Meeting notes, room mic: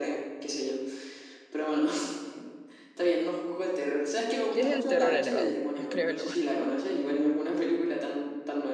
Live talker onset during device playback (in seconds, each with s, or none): 4.5 s